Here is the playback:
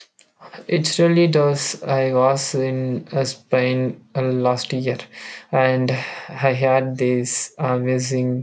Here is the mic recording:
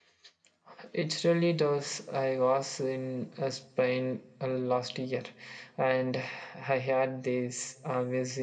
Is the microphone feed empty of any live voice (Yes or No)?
Yes